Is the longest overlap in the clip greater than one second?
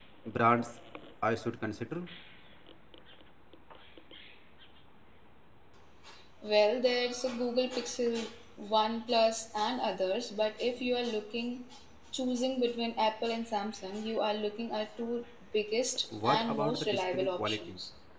Yes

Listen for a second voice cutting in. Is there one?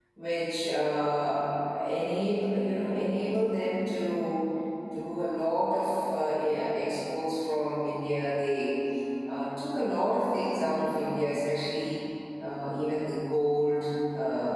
No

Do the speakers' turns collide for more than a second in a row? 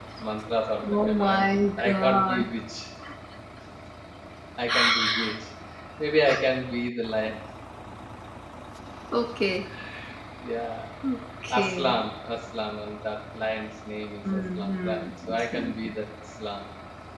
Yes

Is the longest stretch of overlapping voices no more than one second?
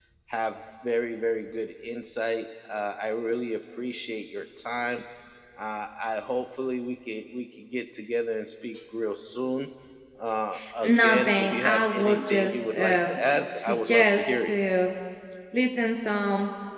No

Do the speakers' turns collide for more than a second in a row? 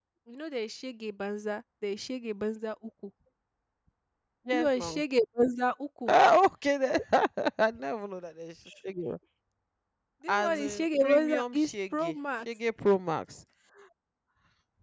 Yes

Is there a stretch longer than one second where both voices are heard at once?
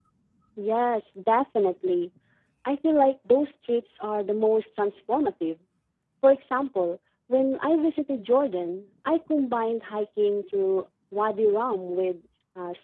No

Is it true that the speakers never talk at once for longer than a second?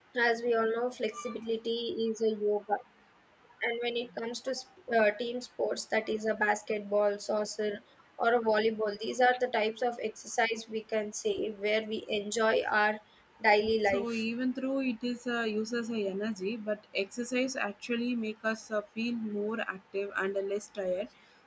Yes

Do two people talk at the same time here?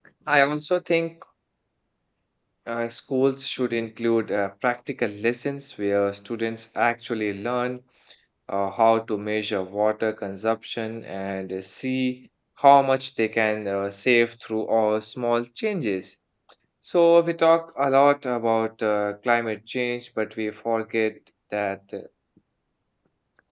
No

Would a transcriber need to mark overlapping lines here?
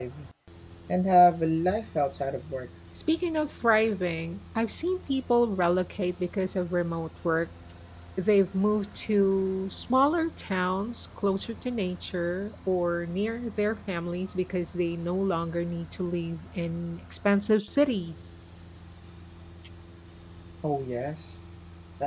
No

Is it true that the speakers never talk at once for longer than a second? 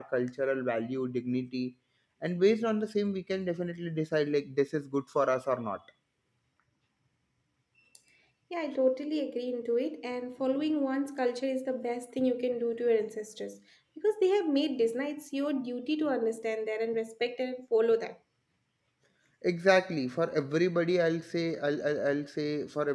Yes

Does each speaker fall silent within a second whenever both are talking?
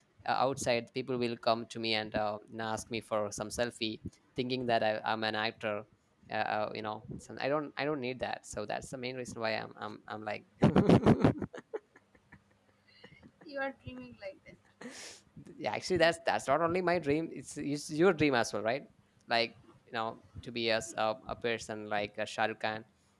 Yes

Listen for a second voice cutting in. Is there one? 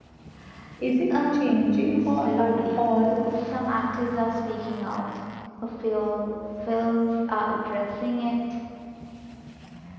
Yes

